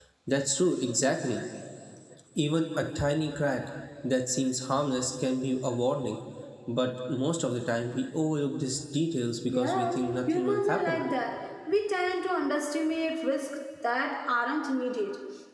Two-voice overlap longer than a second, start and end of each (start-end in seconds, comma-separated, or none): 9.5-11.0